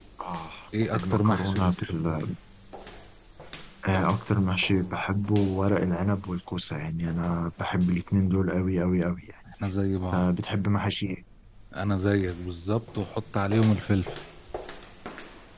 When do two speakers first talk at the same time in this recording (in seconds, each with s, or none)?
0.9 s